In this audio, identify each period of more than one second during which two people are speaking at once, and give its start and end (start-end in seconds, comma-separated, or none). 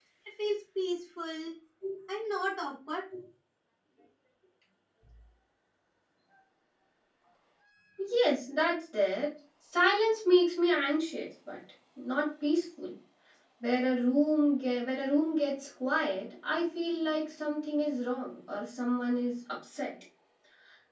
none